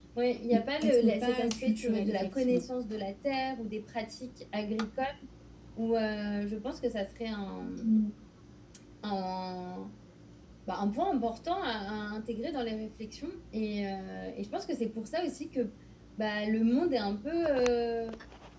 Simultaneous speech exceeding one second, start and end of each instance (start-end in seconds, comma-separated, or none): 0.5-2.6